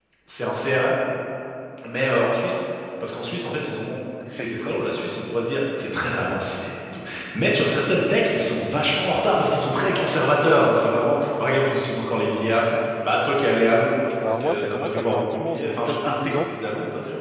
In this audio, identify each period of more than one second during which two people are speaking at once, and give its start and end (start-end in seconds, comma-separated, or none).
14.2-16.4